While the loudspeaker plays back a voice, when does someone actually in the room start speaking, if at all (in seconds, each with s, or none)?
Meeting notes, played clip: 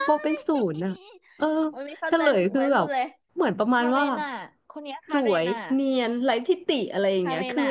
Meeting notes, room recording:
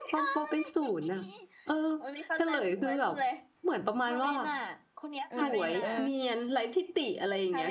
5.3 s